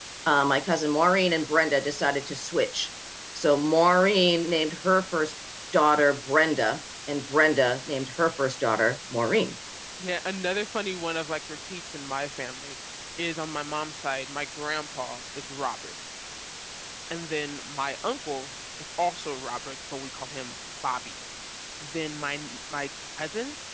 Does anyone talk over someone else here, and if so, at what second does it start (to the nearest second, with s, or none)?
none